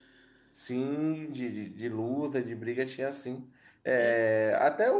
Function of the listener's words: listening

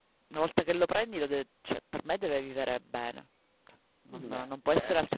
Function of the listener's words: listening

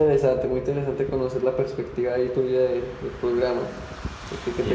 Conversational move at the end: taking over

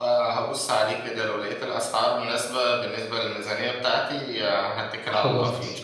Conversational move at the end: taking over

